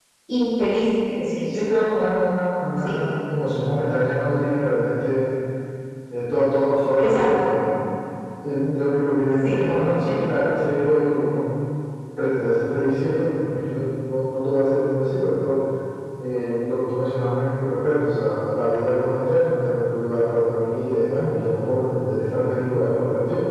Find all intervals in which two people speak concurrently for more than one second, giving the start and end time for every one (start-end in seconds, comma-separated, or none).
none